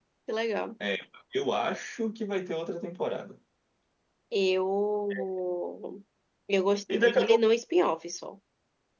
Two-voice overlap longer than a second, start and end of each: none

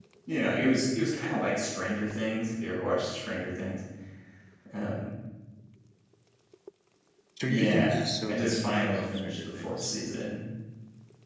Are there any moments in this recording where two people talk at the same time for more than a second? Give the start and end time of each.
7.5-9.9

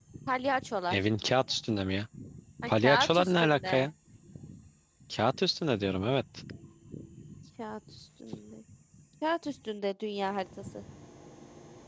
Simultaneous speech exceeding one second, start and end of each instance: 2.7-3.9

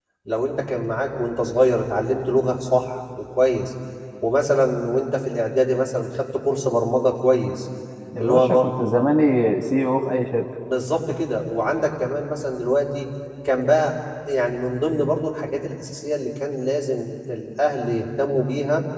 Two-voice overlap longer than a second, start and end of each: none

